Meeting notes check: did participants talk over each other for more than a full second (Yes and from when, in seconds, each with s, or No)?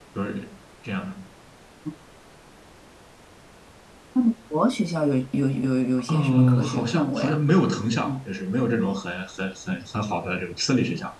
Yes, from 6.1 s